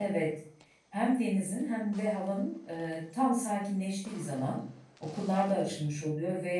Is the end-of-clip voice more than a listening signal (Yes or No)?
No